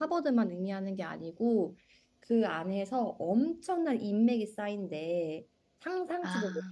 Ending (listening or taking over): listening